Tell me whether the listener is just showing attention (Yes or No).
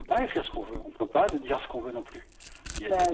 Yes